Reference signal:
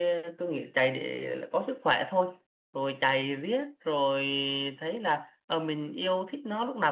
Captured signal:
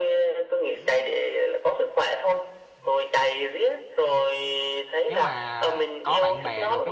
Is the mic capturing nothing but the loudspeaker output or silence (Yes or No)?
No